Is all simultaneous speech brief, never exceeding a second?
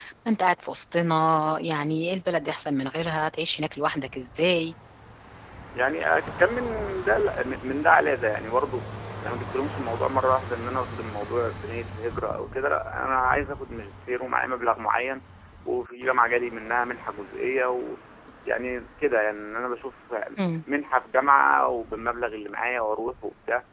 Yes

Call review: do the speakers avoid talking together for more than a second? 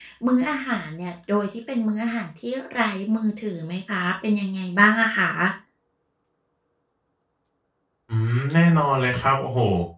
Yes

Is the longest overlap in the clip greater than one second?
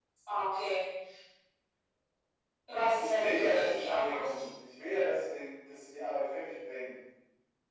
Yes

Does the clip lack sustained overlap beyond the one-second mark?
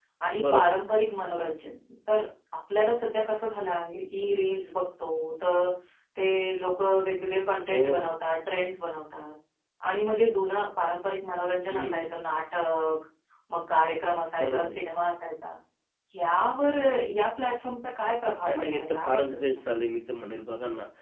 No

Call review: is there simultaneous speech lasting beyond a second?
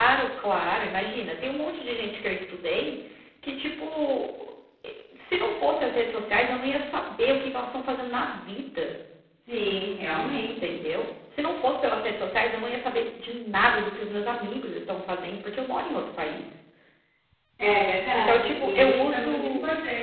Yes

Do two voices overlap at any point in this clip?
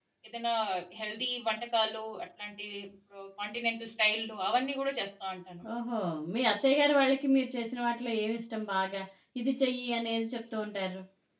No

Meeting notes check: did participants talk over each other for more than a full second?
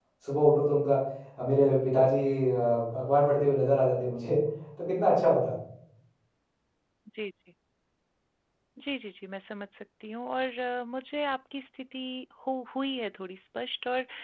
No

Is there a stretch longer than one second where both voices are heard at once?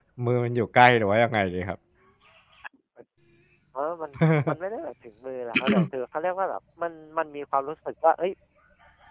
No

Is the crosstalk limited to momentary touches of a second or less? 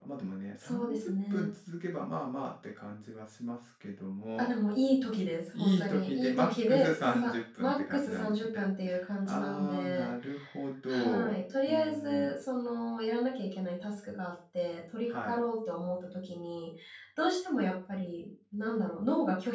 No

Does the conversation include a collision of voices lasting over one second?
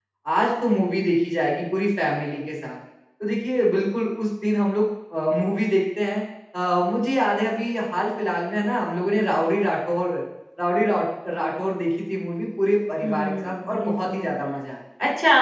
Yes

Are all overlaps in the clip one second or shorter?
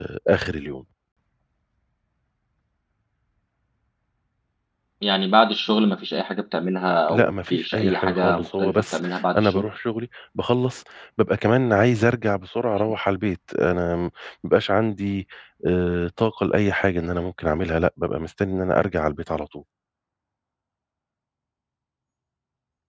No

